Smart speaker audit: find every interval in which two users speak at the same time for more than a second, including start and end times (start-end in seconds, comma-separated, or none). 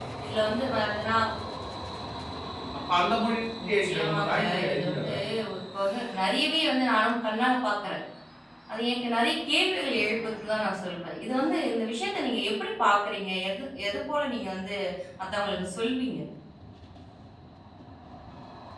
3.8-5.1